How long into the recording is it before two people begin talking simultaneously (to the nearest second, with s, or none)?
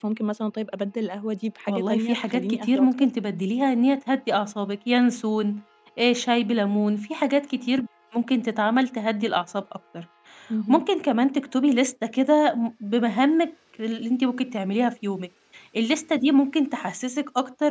2 s